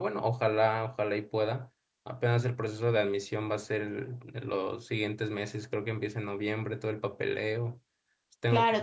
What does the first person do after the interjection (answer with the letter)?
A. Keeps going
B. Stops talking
B